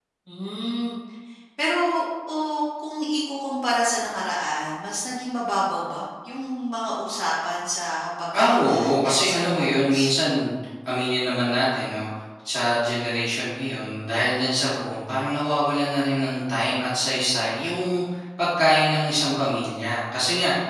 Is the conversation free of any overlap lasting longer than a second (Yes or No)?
No